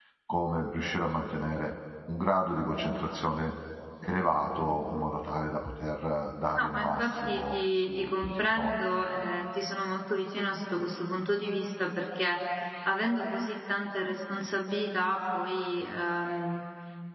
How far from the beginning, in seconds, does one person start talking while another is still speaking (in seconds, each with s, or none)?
6.6 s